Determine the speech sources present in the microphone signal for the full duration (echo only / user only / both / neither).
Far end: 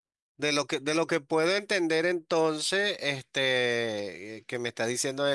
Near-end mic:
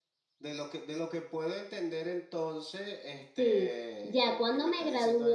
both